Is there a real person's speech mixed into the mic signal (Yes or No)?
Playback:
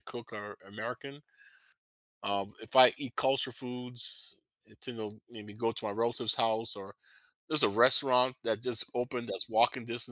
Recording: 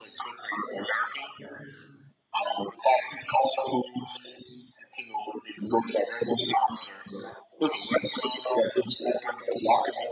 No